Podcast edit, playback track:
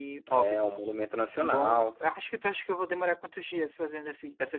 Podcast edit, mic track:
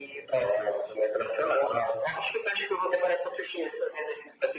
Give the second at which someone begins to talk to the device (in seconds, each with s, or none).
none